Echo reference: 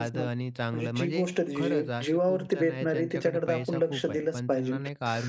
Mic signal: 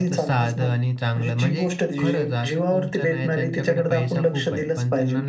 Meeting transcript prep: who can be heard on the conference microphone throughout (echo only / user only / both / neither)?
echo only